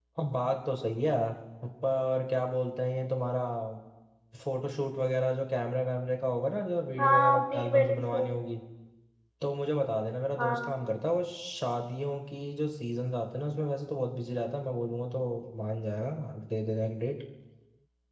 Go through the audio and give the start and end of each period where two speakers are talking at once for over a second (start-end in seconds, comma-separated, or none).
7.0-8.3